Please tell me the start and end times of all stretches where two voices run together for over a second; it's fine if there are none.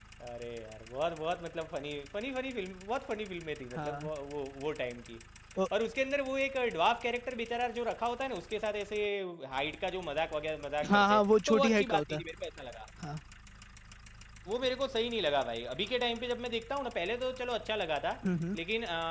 10.9-12.2

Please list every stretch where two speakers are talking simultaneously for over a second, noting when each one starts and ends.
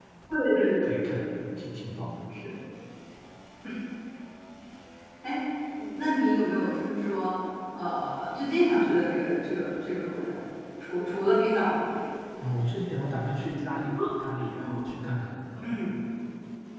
none

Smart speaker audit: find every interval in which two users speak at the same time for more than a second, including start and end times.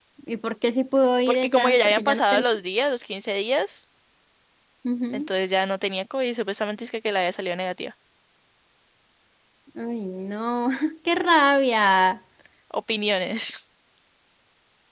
1.3-2.5

